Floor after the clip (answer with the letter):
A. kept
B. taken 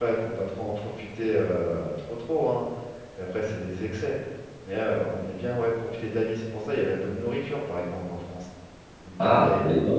B